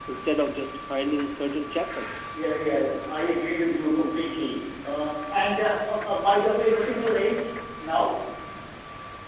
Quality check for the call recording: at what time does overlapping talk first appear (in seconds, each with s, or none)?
none